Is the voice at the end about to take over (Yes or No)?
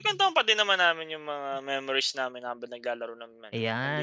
Yes